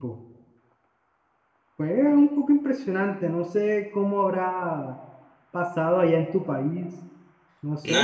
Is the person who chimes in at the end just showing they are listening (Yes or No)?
No